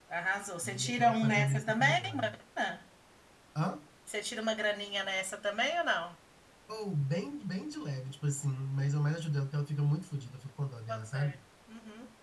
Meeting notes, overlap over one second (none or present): present